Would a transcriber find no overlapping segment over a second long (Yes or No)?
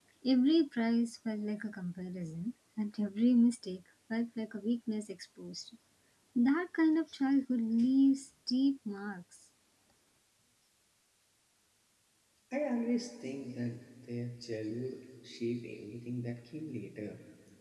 Yes